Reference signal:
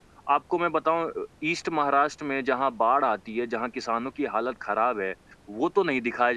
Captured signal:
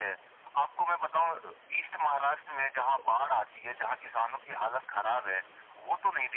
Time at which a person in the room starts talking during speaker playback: none

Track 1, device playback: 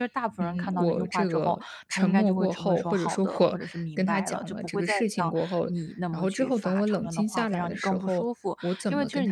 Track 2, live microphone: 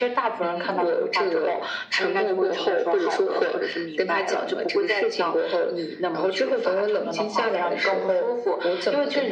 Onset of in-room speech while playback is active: none

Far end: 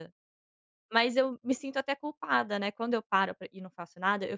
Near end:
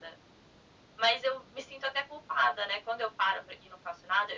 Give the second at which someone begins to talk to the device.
none

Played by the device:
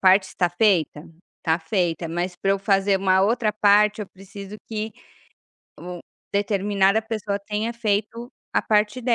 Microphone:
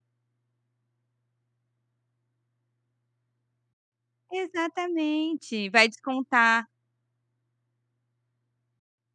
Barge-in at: 4 s

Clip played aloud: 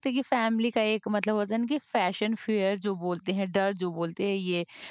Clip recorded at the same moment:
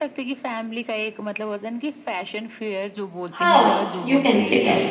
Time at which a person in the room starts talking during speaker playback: 3 s

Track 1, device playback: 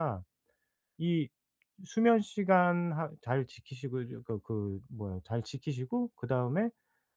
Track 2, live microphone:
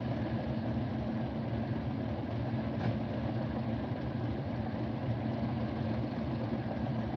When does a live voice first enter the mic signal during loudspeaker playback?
none

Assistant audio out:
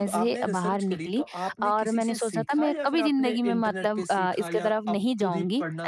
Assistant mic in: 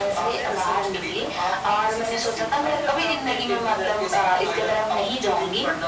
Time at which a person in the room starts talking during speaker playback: none

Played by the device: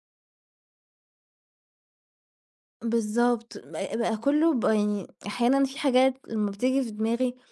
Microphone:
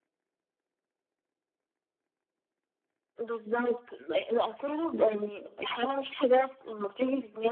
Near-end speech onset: none

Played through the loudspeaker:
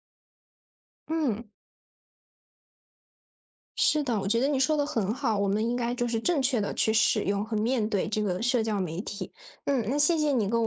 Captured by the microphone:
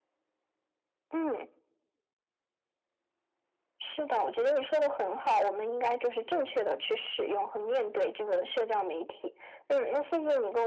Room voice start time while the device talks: none

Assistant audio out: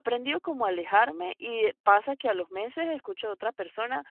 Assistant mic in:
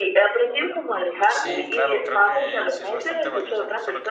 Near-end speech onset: 1 s

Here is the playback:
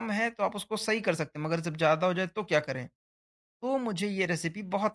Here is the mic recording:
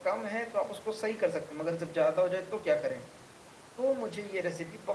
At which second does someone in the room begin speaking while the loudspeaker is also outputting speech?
none

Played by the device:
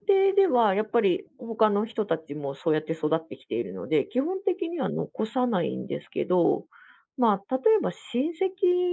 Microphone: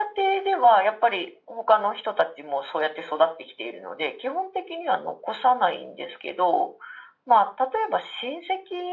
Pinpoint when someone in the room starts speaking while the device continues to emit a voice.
none

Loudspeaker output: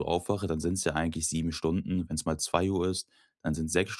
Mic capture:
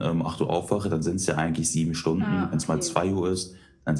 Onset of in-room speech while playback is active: 2 s

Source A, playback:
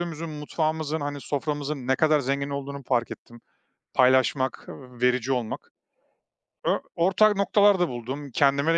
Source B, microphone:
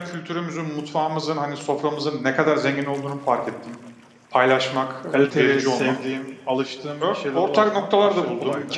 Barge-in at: 5 s

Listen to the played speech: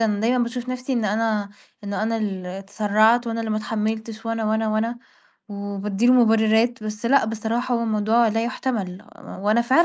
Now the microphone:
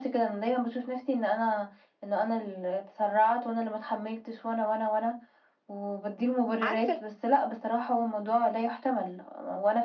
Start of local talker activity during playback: 7 s

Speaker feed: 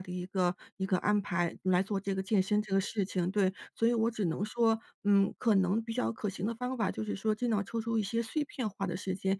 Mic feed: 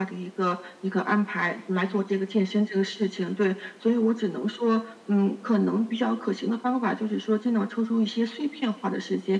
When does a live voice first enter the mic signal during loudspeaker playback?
none

